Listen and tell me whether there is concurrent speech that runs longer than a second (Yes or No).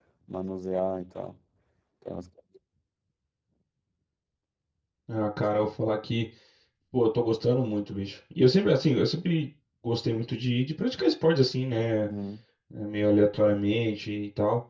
No